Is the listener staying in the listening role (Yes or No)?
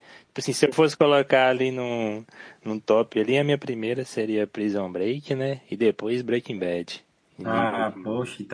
No